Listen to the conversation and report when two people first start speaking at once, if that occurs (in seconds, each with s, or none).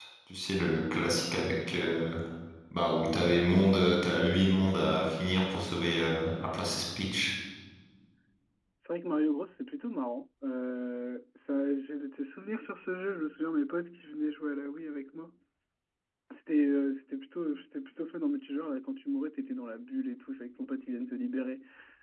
none